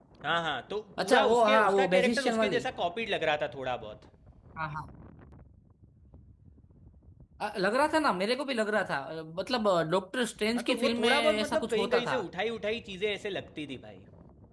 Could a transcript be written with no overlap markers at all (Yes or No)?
No